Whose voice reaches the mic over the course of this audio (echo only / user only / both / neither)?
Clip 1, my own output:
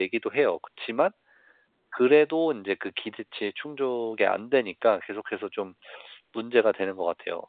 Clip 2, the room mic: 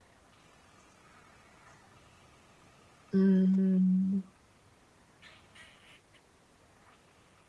user only